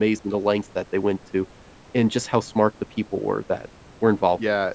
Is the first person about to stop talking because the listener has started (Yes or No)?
Yes